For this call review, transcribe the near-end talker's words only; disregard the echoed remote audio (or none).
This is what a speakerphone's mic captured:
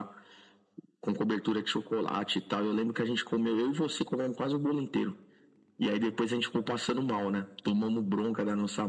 none